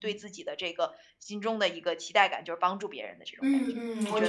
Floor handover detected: Yes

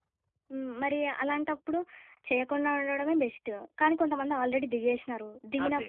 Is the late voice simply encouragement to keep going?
Yes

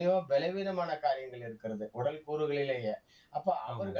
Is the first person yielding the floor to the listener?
No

